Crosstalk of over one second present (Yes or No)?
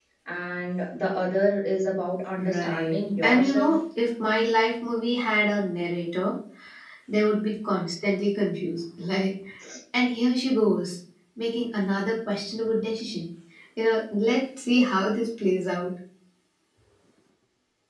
Yes